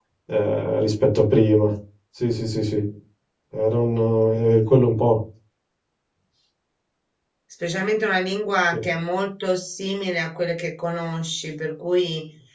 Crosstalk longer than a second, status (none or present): none